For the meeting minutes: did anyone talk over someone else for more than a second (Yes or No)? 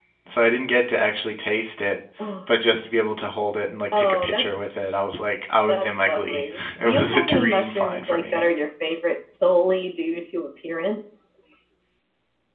Yes